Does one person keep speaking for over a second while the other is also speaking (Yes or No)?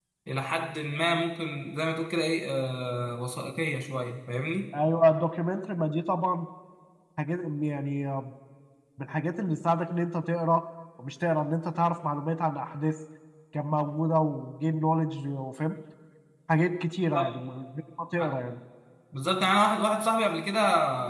No